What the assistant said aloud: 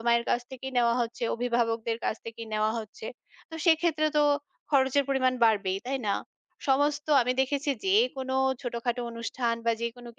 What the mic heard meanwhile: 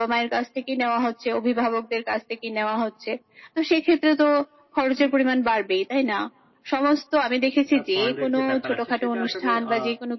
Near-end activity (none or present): present